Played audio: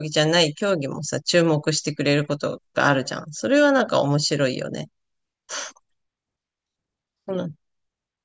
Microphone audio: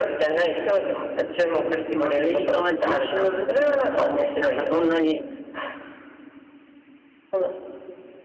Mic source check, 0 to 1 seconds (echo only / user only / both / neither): echo only